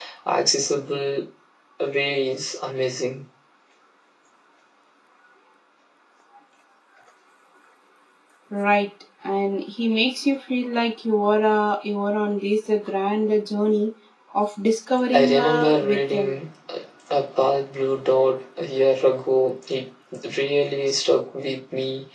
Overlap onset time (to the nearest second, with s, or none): 15 s